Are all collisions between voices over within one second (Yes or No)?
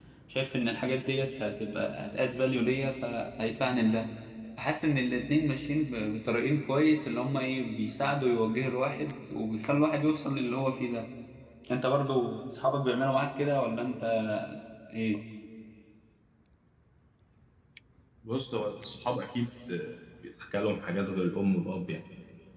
Yes